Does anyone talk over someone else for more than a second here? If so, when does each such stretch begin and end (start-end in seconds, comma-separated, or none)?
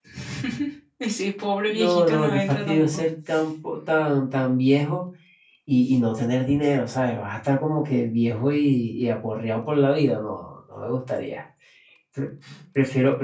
1.7-3.0